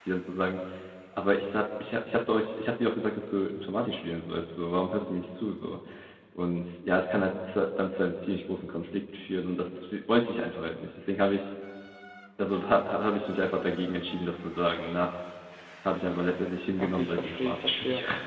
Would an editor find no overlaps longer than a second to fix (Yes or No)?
No